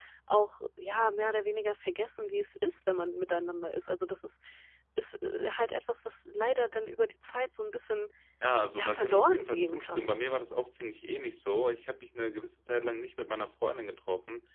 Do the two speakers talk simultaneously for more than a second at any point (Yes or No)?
Yes